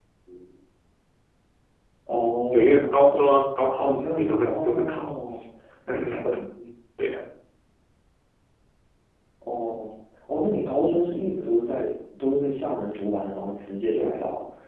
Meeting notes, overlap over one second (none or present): present